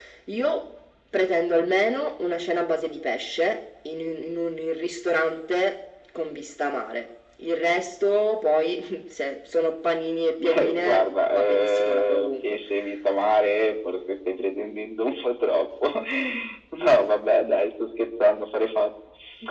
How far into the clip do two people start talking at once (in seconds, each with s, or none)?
10.4 s